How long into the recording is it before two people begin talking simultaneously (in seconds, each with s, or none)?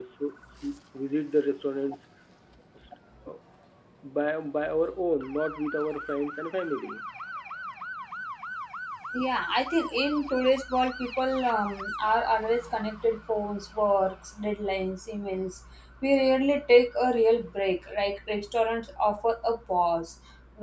none